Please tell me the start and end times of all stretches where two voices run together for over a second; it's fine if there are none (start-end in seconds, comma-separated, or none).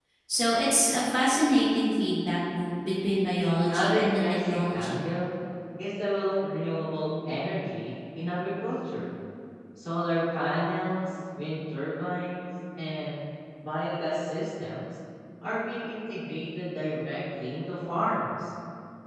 3.7-5.0